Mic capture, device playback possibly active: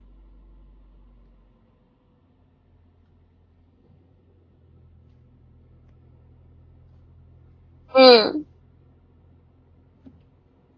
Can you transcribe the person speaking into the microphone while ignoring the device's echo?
mm.

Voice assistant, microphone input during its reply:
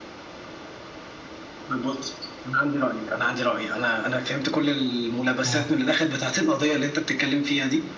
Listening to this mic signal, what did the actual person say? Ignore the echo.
اه

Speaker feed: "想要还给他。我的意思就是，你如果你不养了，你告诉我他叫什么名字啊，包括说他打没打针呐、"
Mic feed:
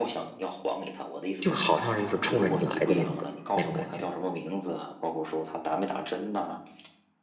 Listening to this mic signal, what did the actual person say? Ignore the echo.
就好像是就是冲着你来的那种感那种感觉。

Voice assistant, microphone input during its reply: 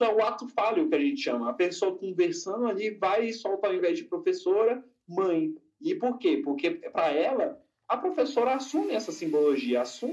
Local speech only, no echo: none

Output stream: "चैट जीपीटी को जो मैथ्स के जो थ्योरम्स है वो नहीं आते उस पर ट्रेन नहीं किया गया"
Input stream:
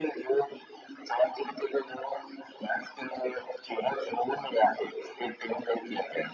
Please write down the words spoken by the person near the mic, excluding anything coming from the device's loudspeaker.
none

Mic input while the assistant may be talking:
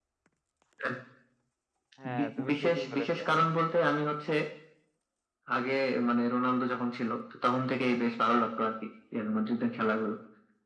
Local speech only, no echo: হ্যাঁ তুমি ঠিকই বলেছো

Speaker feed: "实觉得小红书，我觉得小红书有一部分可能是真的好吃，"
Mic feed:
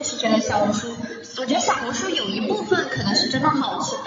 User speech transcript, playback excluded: none

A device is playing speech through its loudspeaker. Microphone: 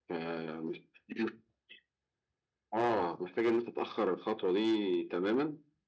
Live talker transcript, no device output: none

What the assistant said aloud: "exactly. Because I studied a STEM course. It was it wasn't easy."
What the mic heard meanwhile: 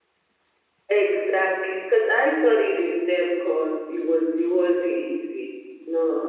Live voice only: none

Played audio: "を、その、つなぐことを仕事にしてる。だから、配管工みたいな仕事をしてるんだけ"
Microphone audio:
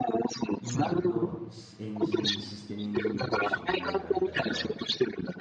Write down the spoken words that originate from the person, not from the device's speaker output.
今のシエンジニ、システムエンジニアという職業のあり方とは

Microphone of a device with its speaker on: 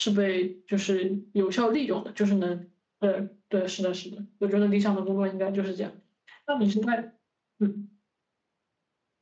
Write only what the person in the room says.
none

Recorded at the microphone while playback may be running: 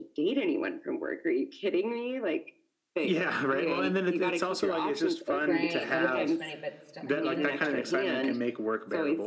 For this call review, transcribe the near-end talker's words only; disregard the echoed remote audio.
Right. Not as much money, but still I mean that's gotta be like

